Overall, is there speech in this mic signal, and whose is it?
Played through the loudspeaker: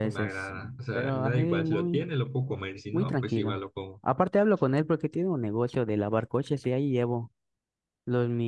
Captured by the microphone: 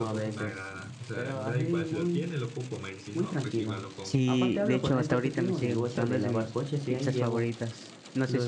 both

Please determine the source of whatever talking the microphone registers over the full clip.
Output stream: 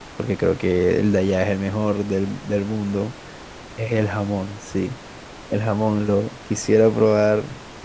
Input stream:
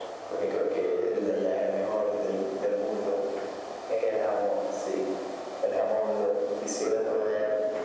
echo only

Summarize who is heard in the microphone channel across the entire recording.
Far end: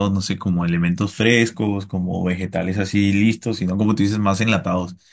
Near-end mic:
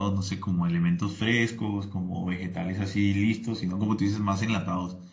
echo only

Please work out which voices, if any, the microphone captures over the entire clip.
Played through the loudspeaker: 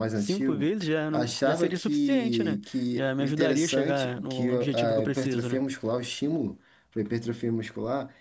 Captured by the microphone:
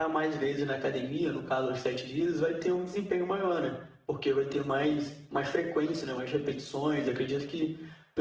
user only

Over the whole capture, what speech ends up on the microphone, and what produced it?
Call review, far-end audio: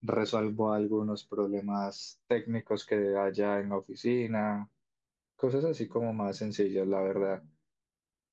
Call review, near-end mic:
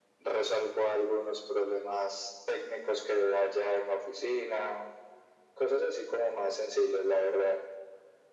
echo only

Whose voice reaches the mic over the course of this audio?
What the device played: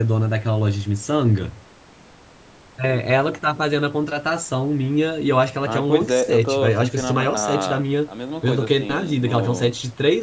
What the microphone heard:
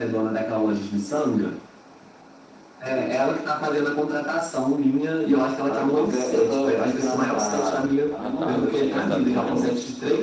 both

